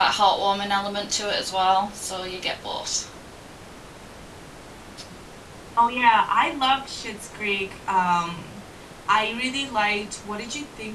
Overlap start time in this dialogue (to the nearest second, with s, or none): none